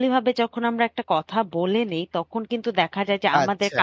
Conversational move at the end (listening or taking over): listening